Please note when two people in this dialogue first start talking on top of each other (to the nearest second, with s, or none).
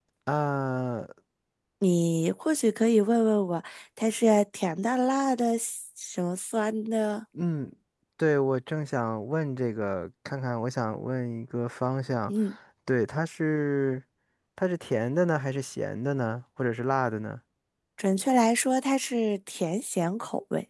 none